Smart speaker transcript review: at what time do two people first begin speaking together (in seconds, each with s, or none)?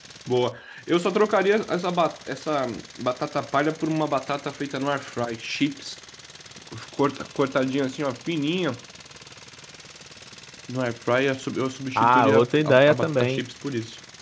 12.0 s